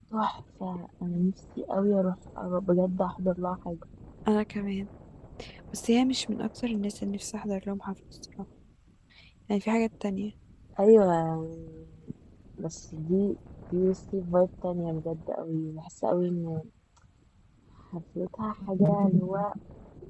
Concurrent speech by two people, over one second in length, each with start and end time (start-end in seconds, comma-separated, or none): none